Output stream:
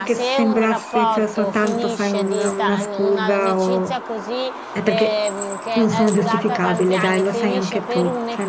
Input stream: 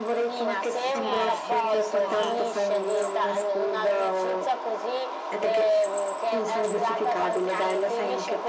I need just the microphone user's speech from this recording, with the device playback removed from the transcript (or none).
Cioè, questo è...